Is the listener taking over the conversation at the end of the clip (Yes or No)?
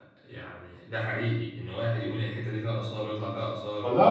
Yes